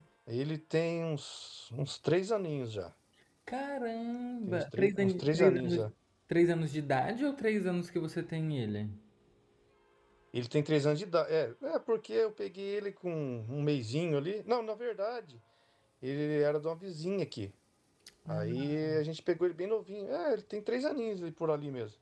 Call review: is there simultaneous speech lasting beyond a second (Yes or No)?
Yes